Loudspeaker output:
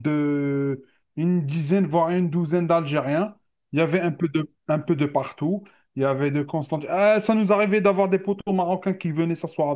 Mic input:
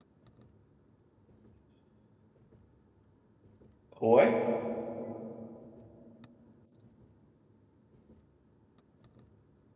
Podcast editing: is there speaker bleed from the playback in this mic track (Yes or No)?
No